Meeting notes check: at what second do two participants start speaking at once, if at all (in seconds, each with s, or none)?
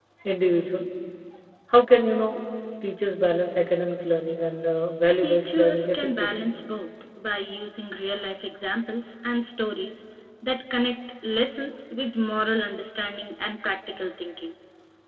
5.2 s